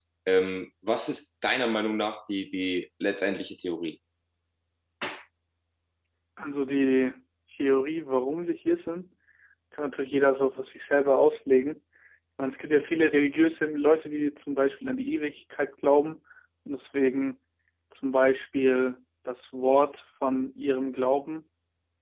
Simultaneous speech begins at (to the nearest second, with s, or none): none